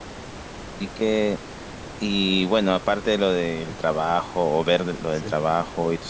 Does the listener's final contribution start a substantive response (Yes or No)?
No